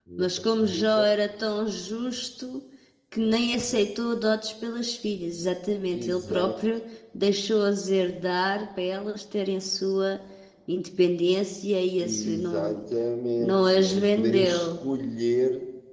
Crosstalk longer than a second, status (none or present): present